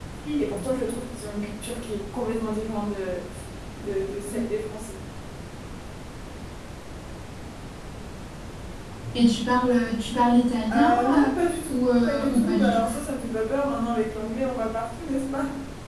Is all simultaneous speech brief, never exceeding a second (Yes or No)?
No